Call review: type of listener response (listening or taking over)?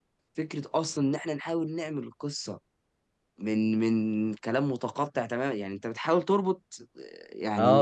taking over